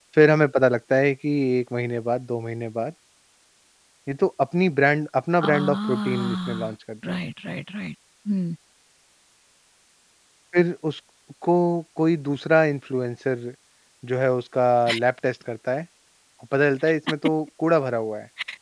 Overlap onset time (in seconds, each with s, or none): 5.4 s